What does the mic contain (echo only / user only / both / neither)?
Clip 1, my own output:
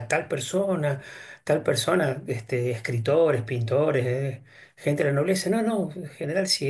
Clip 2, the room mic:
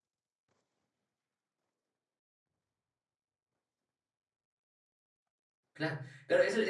user only